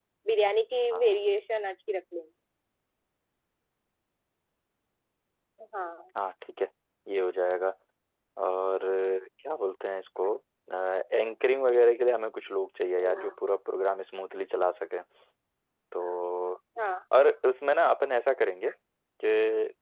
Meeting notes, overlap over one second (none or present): none